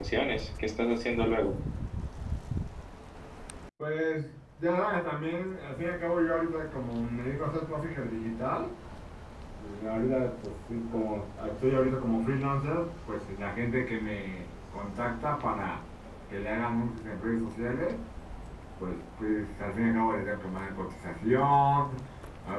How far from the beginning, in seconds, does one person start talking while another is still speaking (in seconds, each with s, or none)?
none